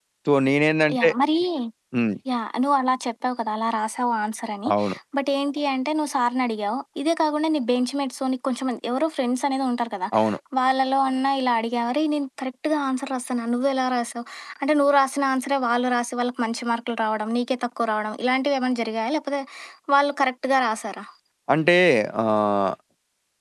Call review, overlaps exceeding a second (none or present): none